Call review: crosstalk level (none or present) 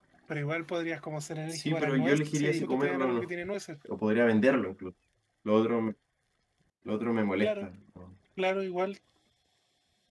present